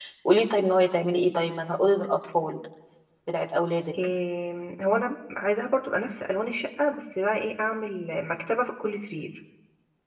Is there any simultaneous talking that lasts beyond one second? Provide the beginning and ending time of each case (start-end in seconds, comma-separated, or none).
none